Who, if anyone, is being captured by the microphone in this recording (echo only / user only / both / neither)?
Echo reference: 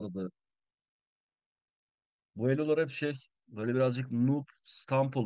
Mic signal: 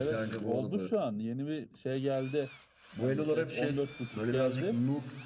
both